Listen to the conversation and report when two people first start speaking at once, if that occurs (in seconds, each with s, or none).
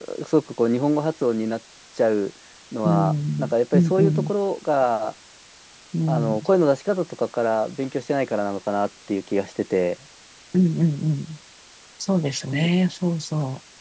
2.8 s